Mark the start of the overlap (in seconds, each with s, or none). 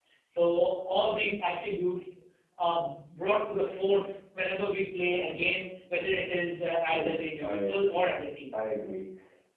6.8 s